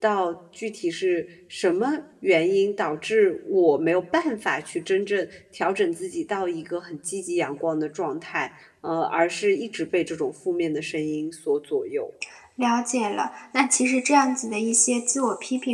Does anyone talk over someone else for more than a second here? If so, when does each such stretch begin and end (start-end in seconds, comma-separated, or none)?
none